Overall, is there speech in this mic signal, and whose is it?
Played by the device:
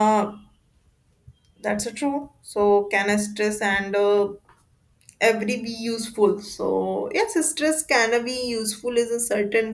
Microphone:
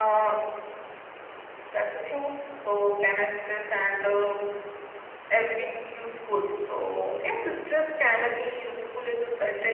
echo only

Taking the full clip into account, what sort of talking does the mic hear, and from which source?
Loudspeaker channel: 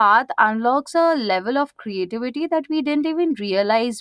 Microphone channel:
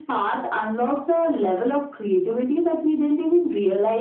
echo only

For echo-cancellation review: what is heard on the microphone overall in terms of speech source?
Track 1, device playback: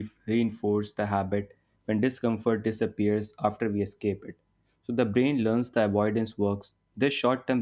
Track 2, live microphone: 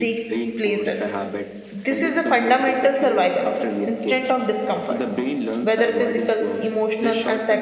both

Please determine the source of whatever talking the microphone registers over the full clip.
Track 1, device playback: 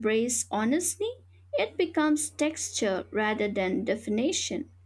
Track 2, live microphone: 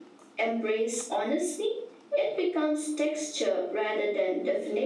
echo only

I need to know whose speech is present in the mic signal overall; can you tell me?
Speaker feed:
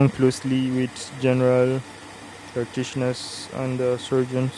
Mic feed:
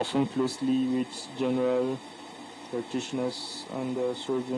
echo only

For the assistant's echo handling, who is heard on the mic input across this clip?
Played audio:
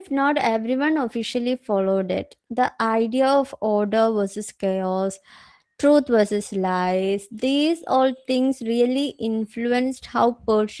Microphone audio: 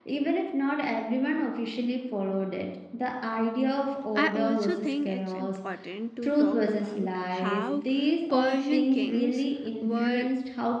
both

